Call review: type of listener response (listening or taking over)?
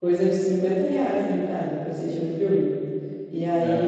listening